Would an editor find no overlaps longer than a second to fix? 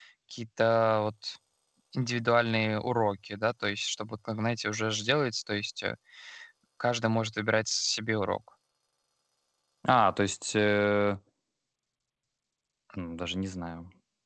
Yes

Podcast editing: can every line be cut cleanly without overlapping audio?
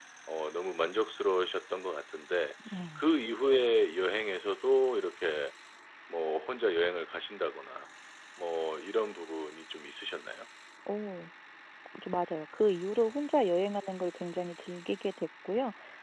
Yes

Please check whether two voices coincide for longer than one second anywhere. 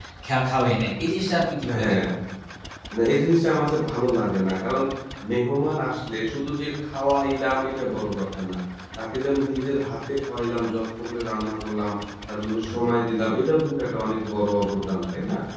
No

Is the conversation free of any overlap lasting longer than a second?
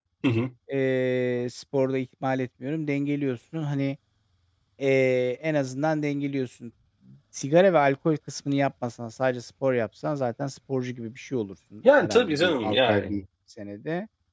No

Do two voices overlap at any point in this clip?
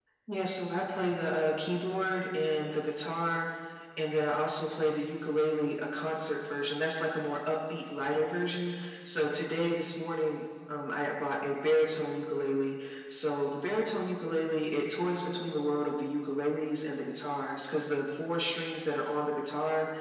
No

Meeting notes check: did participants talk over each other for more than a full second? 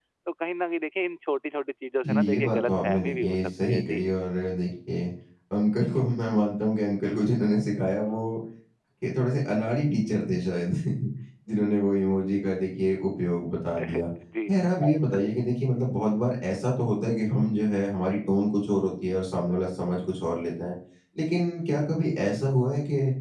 Yes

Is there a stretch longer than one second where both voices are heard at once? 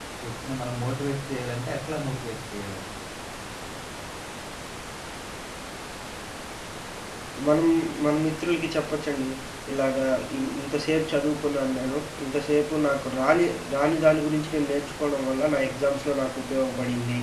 No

